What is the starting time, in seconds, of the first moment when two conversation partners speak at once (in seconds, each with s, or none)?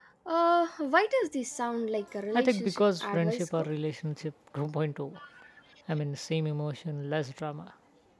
2.3 s